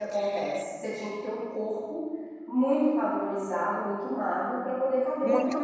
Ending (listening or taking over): taking over